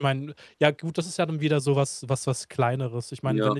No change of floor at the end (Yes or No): Yes